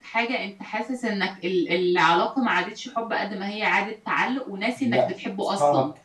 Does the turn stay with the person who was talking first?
No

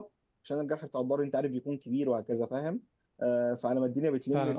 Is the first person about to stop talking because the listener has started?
Yes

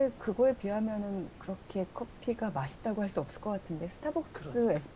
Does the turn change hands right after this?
No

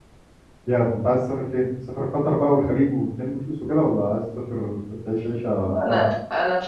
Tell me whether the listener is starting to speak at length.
Yes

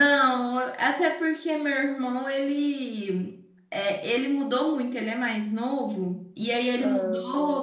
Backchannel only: Yes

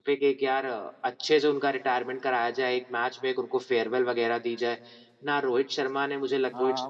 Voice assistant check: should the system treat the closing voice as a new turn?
Yes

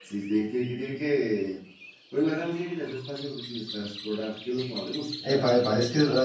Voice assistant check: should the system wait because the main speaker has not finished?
No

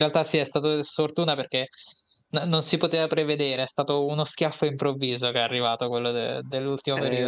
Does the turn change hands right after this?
Yes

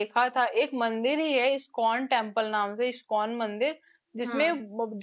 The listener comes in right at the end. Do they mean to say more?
No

